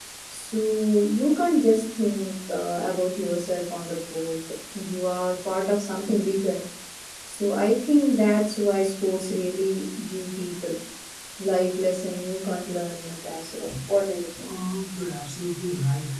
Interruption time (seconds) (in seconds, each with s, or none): none